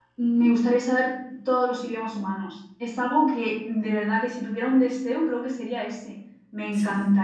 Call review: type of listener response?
listening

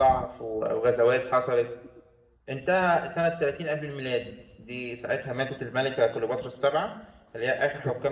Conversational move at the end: listening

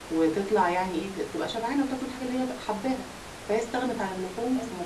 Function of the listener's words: listening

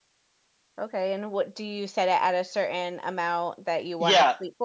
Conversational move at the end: taking over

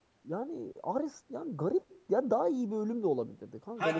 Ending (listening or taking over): taking over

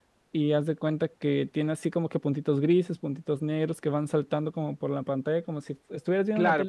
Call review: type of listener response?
taking over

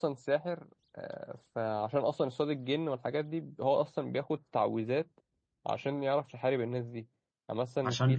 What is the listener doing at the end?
listening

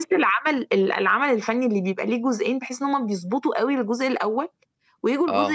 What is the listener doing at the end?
listening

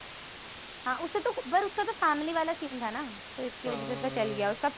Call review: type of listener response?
listening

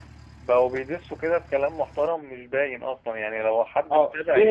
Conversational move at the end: taking over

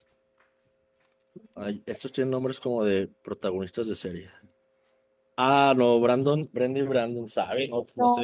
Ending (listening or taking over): taking over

